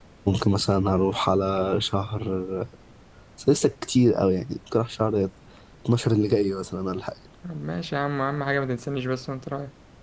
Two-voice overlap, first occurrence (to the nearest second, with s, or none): none